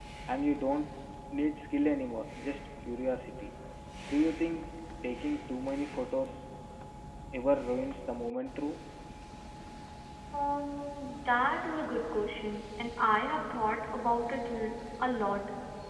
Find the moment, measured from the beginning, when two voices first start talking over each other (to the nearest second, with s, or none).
none